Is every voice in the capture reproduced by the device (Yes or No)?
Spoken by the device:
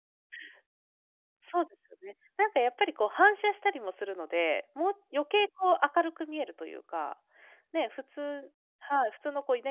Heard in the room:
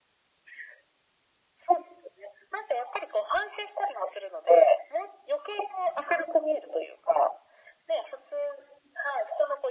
Yes